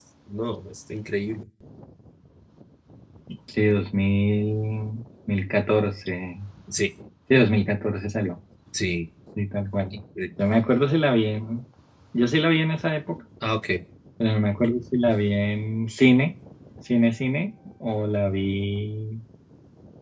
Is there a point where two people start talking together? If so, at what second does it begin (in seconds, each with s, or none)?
none